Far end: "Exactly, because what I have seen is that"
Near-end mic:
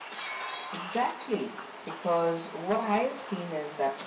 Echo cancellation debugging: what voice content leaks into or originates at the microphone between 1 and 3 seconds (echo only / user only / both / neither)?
echo only